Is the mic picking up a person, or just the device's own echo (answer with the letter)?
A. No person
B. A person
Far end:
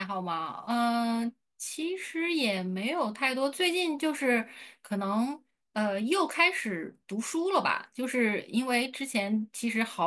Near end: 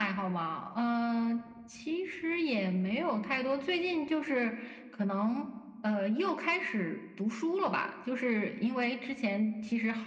A